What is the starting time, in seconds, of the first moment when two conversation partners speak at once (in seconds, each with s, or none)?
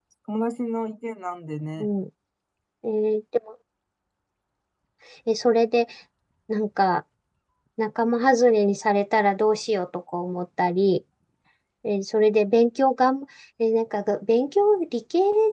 none